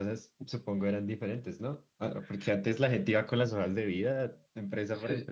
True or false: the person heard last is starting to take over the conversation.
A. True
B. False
A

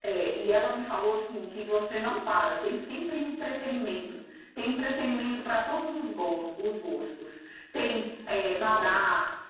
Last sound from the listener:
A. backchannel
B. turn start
A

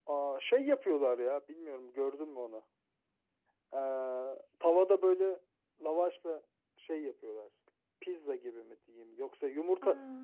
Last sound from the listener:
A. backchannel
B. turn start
A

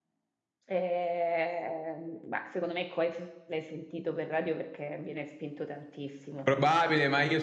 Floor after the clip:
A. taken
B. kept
A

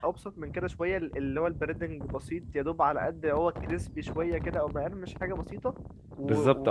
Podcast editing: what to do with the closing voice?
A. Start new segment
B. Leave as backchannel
A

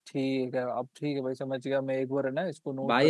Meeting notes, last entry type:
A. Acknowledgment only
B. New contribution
B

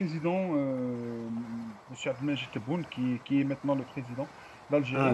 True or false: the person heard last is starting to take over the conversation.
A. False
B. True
A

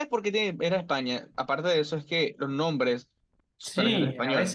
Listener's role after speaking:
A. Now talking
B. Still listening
A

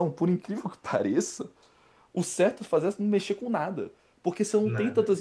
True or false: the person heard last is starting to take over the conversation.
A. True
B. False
B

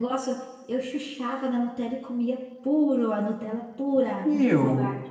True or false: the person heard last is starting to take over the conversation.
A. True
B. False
A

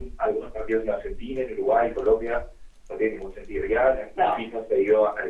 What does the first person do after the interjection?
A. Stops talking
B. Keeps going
B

